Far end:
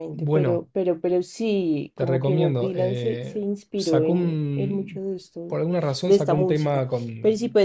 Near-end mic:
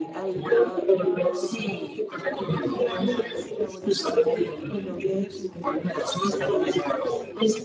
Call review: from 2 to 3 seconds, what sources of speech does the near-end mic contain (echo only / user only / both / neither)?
both